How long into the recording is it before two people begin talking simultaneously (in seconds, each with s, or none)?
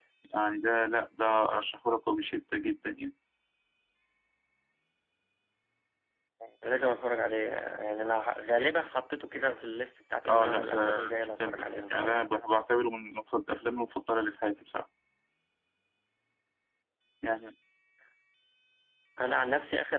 10.2 s